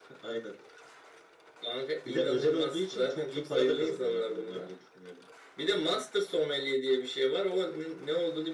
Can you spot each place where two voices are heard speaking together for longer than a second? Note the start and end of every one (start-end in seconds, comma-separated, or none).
2.1-4.7